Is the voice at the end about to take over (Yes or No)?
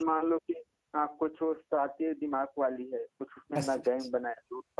No